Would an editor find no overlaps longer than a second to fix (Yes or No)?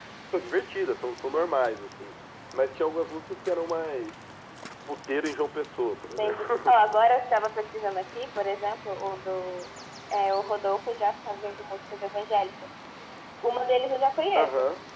Yes